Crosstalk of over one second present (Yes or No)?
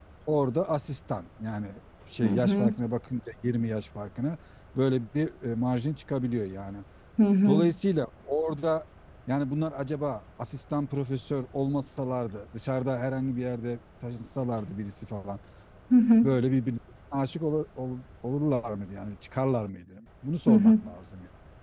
No